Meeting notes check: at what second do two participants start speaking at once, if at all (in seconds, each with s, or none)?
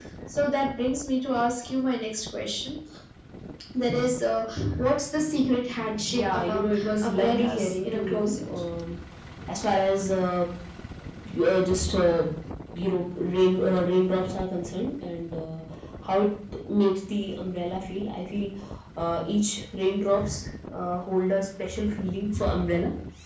6.1 s